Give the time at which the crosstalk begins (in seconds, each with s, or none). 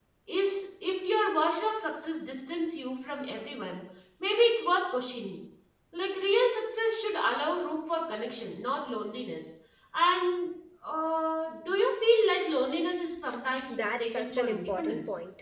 13.7 s